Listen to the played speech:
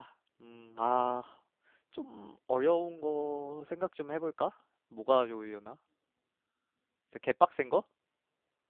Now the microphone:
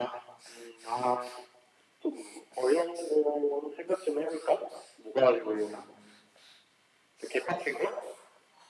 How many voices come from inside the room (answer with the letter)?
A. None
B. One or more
B